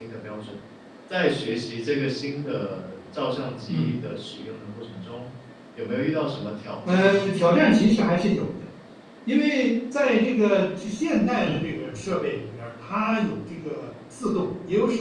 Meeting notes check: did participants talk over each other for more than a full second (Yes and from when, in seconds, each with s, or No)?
No